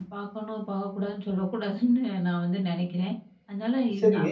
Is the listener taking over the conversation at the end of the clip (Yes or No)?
Yes